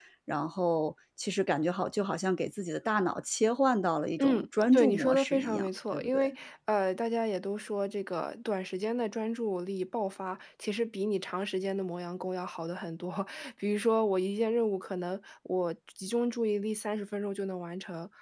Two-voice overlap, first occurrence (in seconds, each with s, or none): 4.2 s